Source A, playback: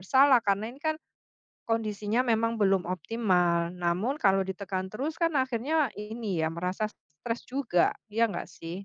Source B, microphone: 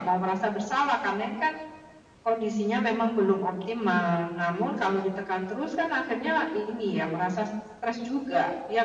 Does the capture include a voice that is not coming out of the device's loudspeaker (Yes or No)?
No